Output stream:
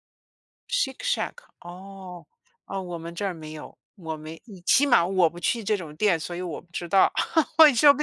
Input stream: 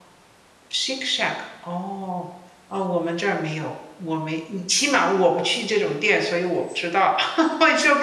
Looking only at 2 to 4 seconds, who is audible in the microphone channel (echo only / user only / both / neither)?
echo only